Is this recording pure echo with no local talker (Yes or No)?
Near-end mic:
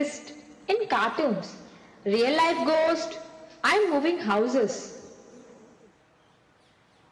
Yes